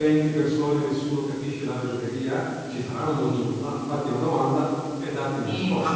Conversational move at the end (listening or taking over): taking over